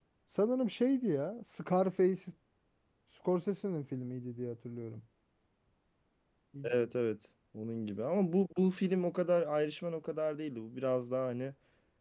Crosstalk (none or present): none